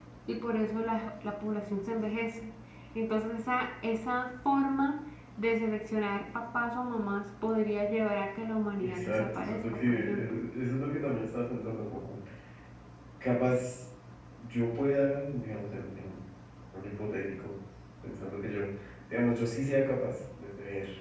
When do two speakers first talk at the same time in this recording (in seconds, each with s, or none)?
8.8 s